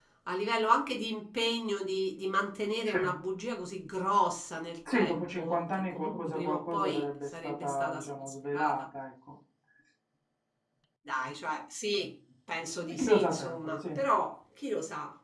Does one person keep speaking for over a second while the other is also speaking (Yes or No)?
Yes